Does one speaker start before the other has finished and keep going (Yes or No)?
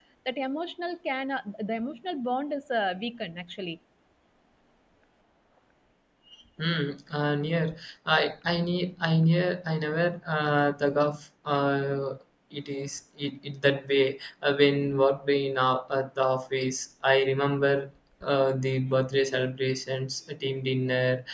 No